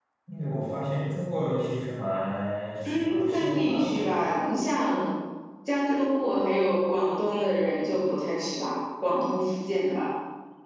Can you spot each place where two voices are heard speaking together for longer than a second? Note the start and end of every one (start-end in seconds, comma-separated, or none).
2.8-4.1